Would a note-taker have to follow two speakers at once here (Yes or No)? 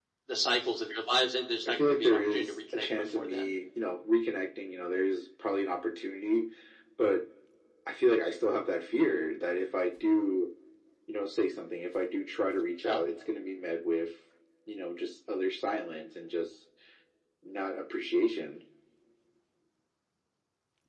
Yes